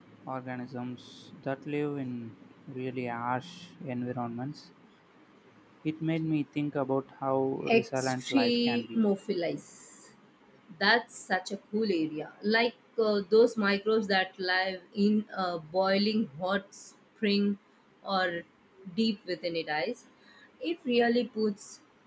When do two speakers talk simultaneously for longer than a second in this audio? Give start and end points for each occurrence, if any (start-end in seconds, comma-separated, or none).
7.7-9.0